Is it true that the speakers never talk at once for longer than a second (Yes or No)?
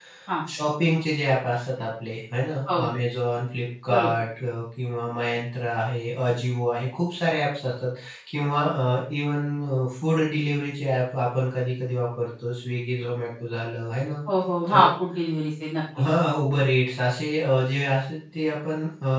Yes